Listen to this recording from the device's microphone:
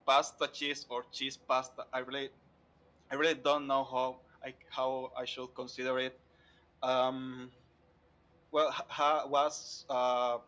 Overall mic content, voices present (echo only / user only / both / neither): echo only